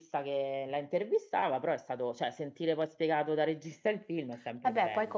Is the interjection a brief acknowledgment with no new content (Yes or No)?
No